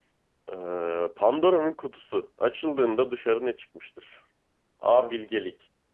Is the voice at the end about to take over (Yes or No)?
No